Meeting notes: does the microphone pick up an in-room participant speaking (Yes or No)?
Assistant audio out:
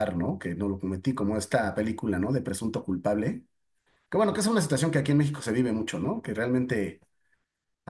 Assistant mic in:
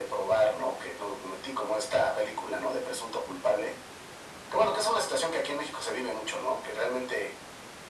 No